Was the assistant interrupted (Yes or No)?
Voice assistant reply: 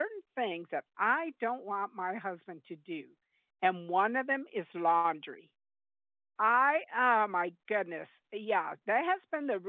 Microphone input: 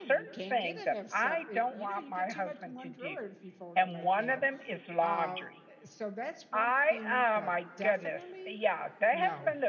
Yes